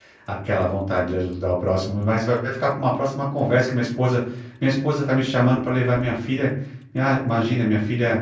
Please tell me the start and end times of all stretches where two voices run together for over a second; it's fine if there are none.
none

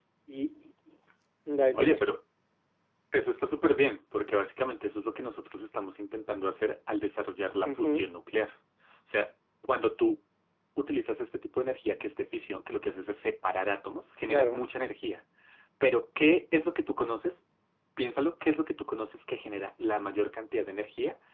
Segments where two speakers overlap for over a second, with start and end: none

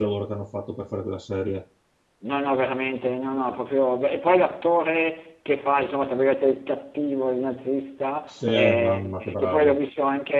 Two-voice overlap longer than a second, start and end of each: 8.3-9.8

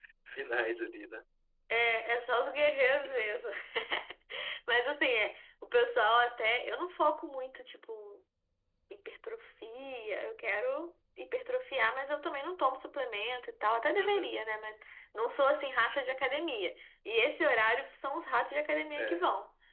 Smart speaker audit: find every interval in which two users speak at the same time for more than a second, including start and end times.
none

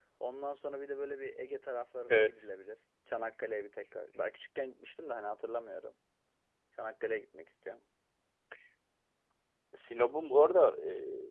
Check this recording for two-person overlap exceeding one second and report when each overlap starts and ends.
none

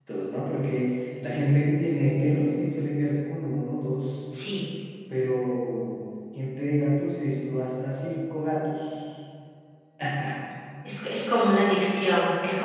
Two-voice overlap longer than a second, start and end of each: none

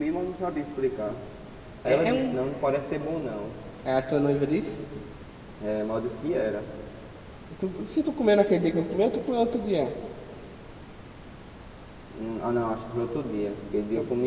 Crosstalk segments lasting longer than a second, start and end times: none

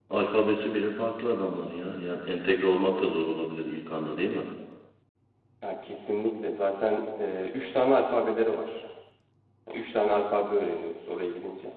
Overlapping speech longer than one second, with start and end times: none

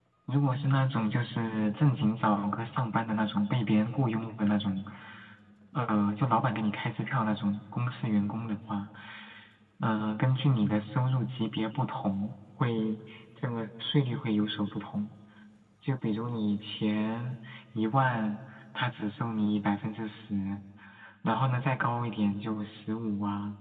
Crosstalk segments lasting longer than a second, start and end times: none

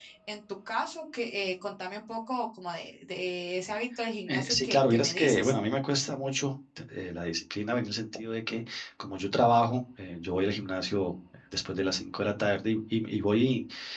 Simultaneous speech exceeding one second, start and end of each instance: 4.3-5.5

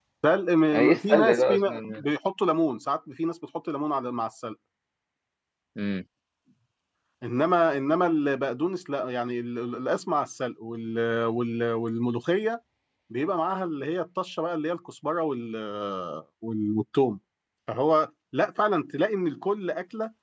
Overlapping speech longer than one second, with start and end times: 0.7-2.0

